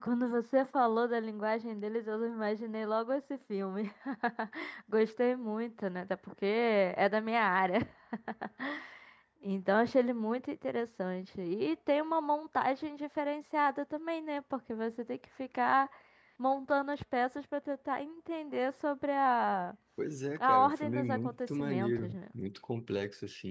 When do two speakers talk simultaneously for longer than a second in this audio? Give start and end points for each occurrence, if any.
20.4-22.2

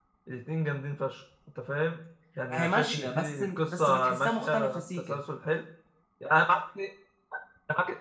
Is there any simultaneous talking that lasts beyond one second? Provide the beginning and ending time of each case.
2.5-5.2

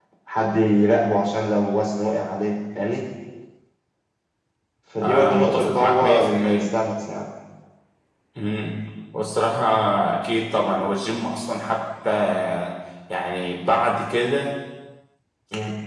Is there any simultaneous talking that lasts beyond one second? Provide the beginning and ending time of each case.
5.0-6.7

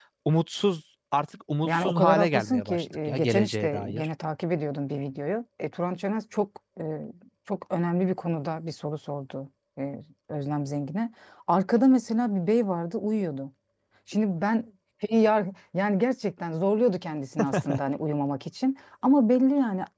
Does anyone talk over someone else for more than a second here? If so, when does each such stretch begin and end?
1.6-4.1

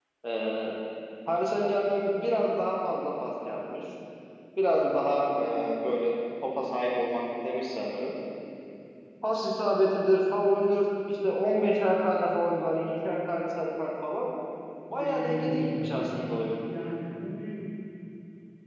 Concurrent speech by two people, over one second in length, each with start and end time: 15.0-16.6

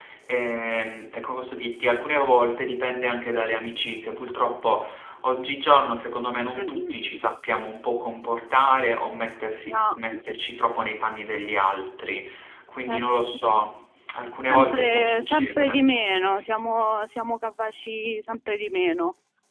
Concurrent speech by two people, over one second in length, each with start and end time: 14.5-15.9

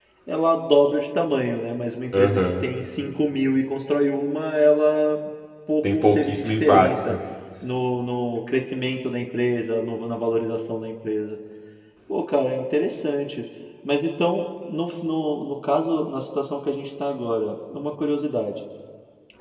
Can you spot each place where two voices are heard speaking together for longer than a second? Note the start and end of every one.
5.8-7.2

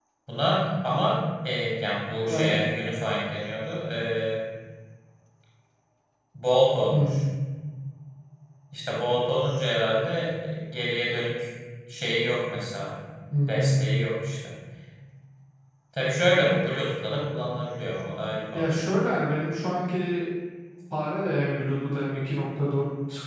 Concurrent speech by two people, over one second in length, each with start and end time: none

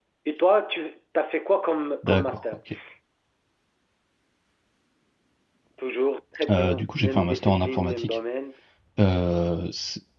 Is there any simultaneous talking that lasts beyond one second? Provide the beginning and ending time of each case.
6.5-8.2

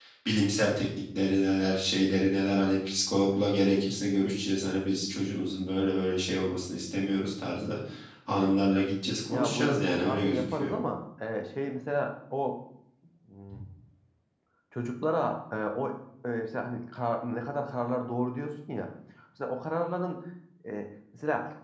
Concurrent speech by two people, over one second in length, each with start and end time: 9.3-10.7

